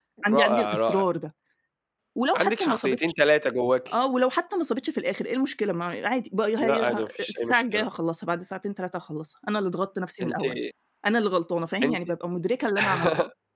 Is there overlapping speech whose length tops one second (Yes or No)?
Yes